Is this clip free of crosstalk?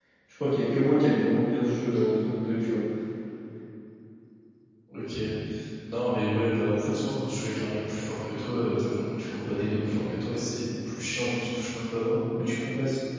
Yes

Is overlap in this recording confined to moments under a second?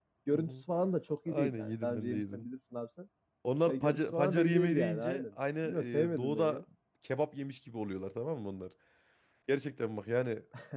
No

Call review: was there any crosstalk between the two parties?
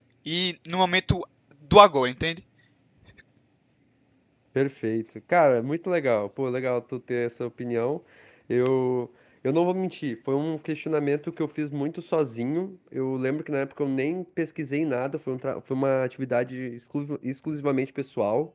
No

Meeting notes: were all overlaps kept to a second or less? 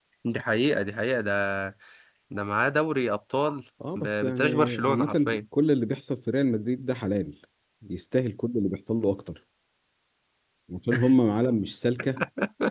No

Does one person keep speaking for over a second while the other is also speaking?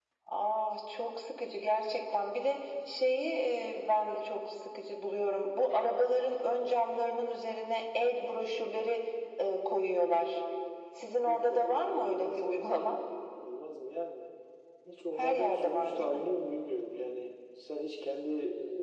Yes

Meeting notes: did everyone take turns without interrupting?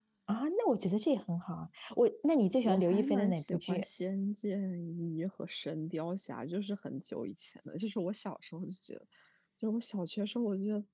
No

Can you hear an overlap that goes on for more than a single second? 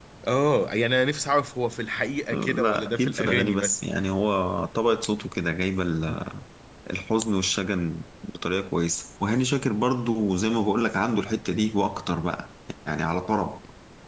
Yes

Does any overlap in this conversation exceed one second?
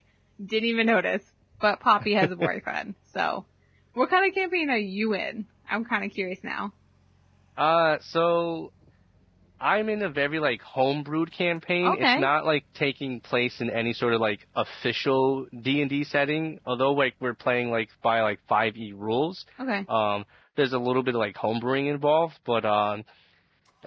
No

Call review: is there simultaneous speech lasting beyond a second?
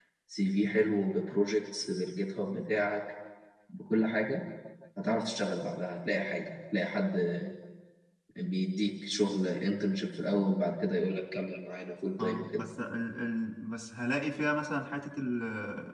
No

